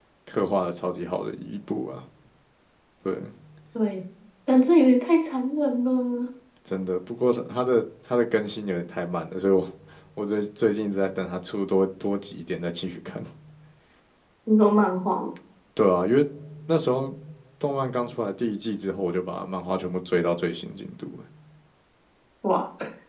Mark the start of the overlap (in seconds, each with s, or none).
none